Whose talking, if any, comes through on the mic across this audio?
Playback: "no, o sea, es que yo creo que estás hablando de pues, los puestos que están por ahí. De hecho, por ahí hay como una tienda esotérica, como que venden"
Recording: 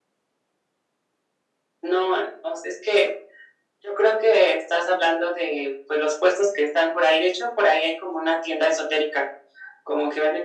echo only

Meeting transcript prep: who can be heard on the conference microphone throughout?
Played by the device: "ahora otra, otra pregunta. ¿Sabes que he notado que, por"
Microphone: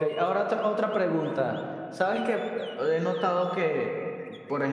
echo only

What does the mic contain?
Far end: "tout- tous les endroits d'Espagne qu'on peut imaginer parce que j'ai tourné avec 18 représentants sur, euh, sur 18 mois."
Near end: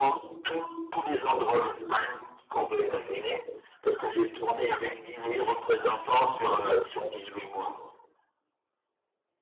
echo only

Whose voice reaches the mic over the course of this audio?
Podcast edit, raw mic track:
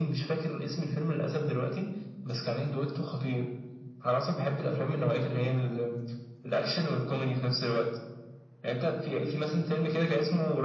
echo only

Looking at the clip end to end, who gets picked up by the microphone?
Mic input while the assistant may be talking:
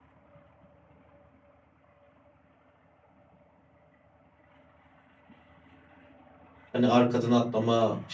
user only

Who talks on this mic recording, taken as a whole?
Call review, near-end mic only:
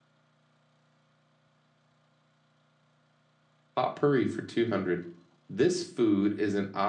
user only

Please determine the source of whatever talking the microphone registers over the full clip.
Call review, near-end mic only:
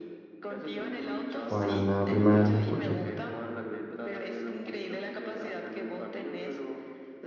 both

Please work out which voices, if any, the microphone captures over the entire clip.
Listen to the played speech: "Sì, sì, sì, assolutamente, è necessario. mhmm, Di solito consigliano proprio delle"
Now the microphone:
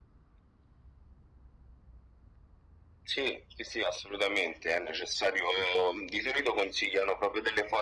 echo only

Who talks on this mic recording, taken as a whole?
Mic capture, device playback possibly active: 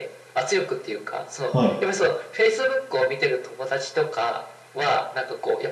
both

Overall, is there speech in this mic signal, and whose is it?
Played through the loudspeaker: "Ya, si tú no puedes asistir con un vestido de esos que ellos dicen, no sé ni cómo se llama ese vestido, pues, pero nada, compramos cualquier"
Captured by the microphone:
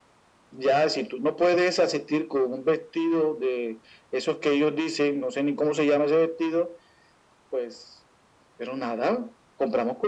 echo only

